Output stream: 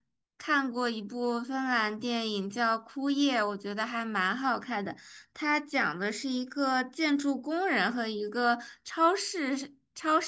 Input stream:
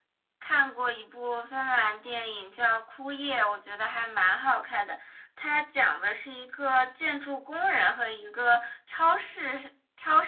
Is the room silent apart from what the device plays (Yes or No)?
Yes